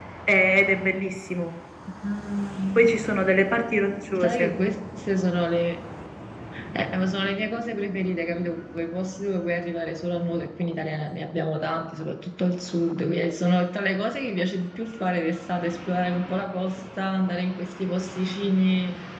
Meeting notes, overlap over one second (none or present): none